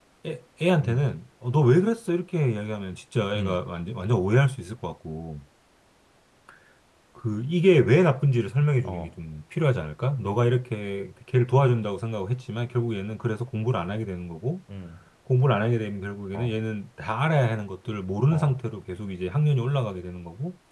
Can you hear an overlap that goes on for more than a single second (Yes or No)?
No